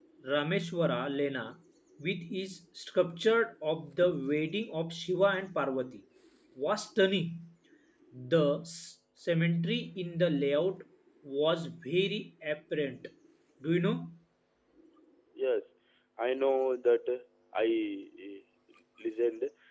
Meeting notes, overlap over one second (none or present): none